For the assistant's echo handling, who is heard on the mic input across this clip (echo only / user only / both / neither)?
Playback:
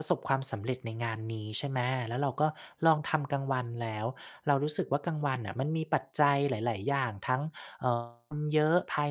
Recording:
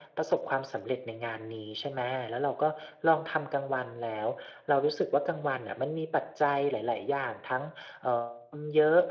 echo only